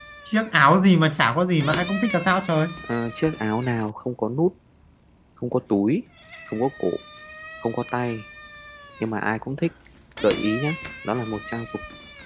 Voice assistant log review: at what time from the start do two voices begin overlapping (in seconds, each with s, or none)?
none